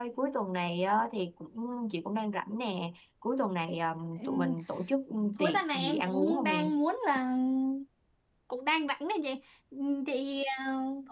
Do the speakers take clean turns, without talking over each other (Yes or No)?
No